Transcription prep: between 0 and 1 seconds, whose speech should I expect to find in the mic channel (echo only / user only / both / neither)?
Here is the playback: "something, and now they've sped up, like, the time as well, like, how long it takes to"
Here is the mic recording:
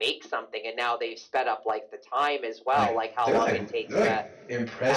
echo only